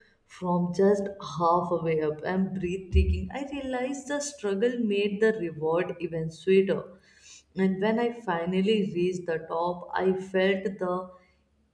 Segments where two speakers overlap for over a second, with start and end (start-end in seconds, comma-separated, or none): none